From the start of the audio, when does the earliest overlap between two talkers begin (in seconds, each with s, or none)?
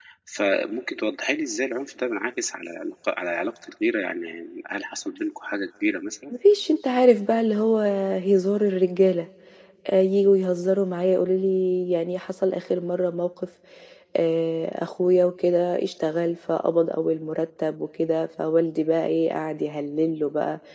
none